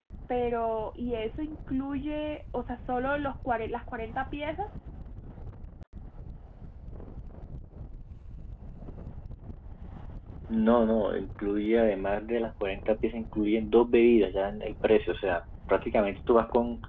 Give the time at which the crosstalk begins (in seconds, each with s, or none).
none